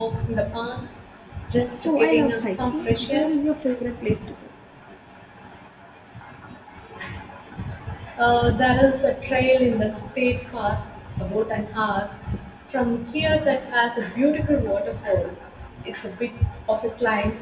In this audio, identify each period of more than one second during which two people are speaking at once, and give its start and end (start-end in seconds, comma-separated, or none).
1.9-3.3